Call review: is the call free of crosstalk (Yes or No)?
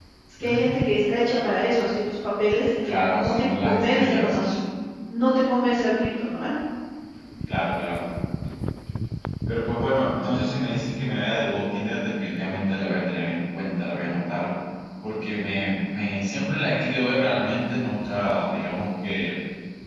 No